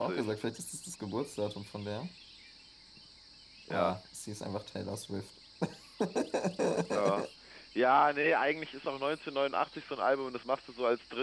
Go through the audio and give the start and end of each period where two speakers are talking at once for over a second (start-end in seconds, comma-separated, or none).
none